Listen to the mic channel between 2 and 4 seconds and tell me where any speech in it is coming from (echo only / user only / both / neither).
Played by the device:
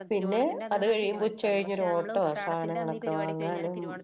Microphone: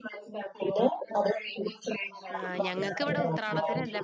both